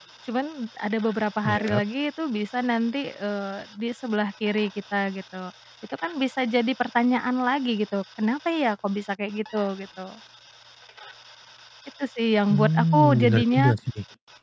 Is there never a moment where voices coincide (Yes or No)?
No